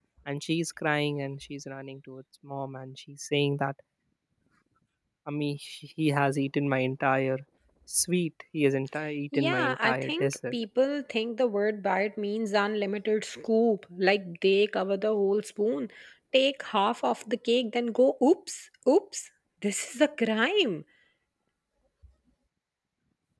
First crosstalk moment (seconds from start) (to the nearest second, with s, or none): 9 s